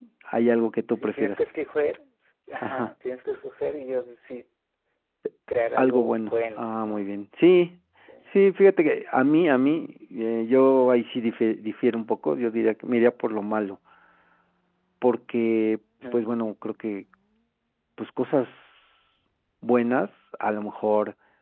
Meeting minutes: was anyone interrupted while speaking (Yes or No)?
Yes